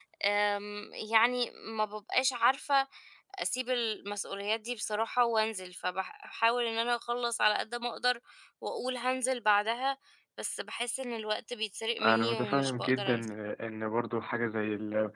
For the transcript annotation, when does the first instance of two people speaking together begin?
12 s

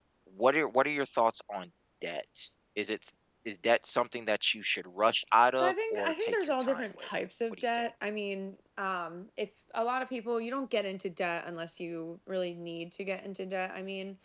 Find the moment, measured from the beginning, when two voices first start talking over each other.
6 s

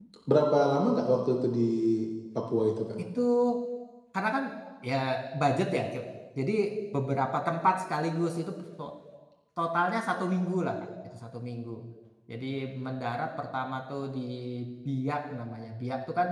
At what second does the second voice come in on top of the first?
none

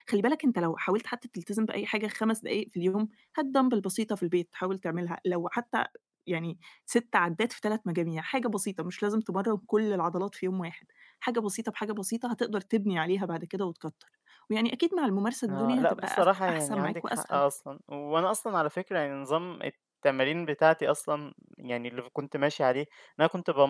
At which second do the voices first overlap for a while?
15 s

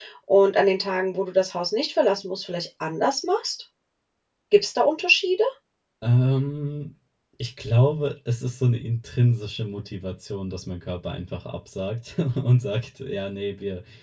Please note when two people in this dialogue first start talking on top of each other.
none

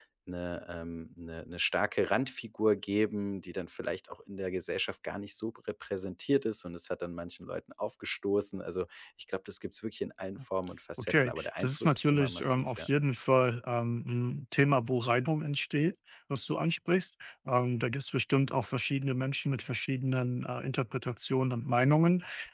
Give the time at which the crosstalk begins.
11 s

